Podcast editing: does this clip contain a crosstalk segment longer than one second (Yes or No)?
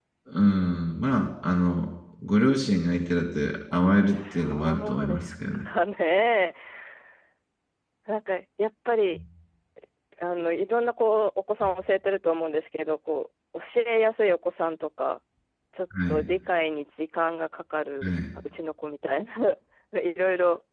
Yes